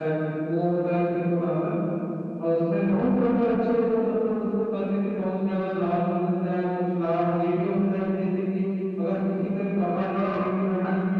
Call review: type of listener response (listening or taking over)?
listening